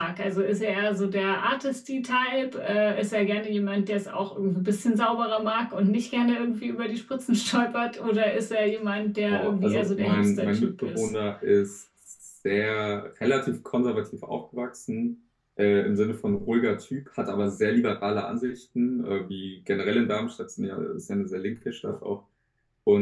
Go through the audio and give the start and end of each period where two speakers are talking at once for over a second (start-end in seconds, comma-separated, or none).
9.3-11.1